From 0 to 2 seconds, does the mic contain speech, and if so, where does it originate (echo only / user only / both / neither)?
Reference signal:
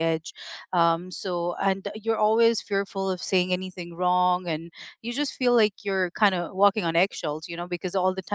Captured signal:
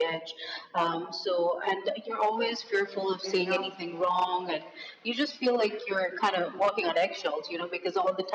echo only